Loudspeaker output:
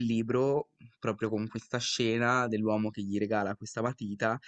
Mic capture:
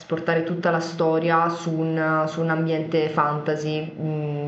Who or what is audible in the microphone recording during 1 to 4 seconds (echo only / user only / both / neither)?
user only